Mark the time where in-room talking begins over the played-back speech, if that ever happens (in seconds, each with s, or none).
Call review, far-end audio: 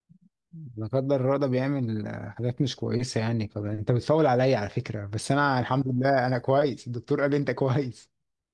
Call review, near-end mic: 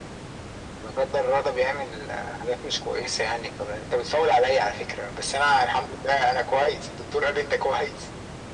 none